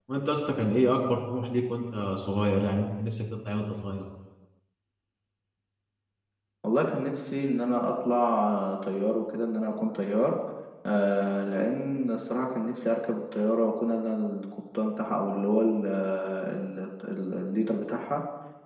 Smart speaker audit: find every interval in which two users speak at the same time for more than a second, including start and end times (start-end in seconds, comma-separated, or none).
none